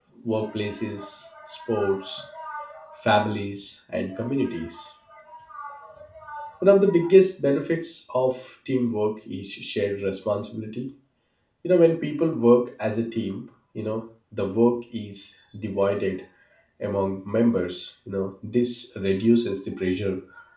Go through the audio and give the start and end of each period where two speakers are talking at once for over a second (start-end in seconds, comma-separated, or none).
none